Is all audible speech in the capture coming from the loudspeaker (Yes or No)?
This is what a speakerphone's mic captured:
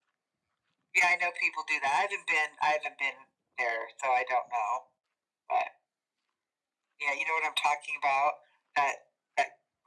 Yes